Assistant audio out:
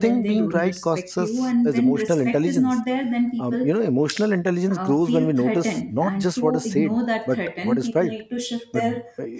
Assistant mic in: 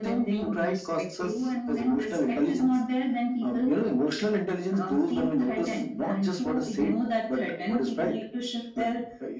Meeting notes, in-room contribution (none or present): none